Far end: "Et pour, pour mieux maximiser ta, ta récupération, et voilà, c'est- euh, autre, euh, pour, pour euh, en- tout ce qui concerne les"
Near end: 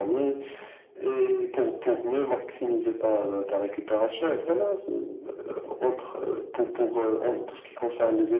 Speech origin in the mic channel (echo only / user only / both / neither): echo only